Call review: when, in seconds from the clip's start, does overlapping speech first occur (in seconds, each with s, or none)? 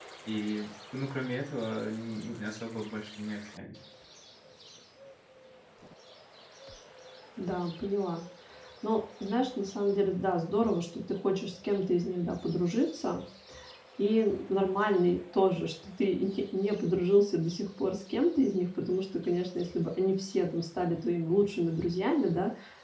none